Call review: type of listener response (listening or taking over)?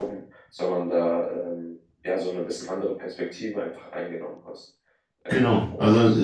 taking over